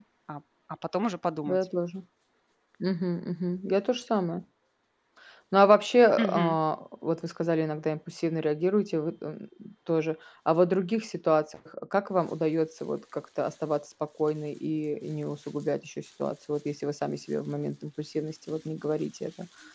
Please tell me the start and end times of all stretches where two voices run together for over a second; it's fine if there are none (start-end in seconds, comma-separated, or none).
none